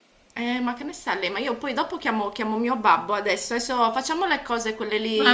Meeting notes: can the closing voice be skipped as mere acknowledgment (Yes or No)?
No